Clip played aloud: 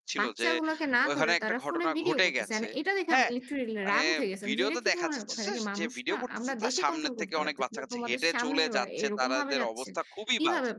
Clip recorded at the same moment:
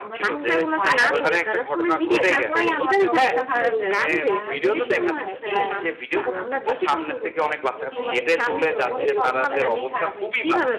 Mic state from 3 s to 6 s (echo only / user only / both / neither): both